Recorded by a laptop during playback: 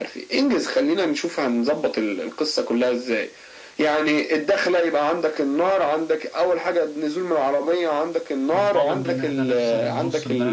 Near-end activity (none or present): present